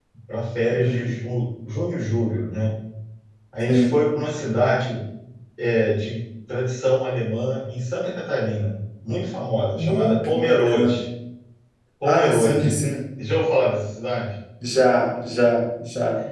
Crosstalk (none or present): present